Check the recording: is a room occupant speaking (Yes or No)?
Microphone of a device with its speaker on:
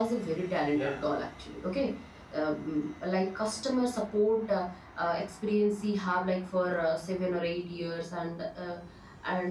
Yes